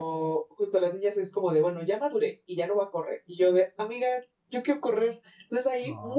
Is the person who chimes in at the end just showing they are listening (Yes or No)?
Yes